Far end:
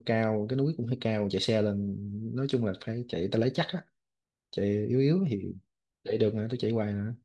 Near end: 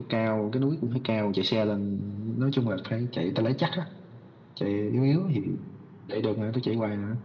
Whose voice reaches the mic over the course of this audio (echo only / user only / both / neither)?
echo only